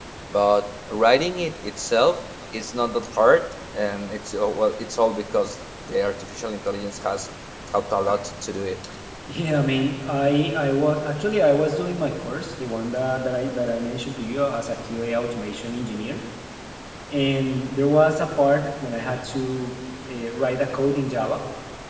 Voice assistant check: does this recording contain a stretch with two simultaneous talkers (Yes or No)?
No